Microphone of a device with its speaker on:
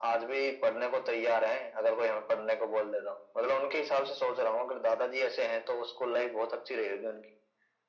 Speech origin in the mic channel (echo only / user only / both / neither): echo only